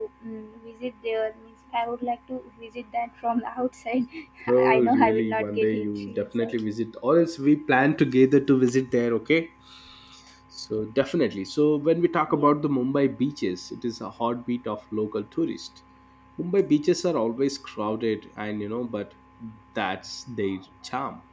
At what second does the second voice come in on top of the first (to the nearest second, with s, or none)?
5 s